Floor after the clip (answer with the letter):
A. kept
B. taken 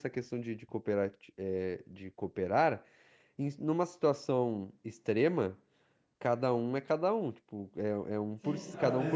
B